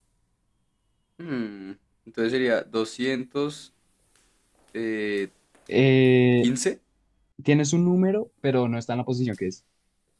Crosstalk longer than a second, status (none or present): none